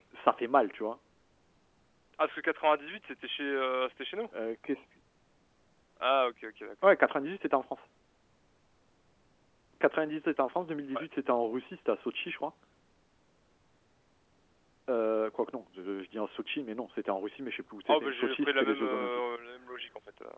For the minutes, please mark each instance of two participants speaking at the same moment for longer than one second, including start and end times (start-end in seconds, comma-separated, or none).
17.9-19.2